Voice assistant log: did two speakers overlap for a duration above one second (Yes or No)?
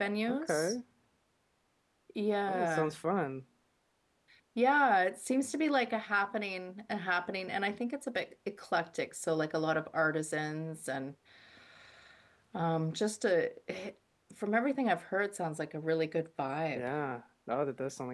No